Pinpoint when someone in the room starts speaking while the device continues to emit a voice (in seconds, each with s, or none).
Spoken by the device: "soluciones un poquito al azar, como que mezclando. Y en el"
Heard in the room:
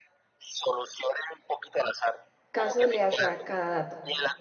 2.5 s